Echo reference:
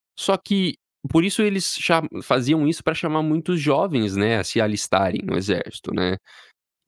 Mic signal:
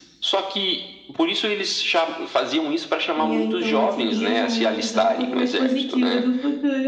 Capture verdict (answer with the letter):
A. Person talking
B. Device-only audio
A